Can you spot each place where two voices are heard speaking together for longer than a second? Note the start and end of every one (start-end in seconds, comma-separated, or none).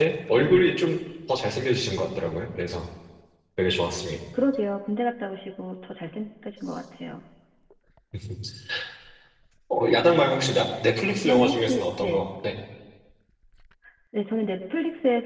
11.0-12.3